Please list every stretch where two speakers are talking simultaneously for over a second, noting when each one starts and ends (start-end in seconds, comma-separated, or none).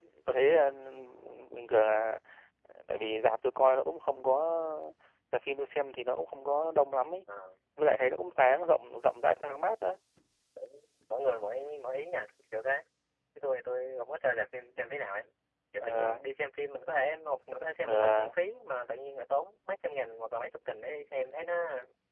none